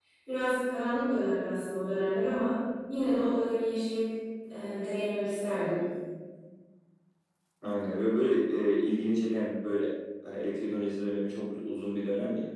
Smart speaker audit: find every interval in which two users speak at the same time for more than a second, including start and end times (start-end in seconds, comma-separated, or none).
none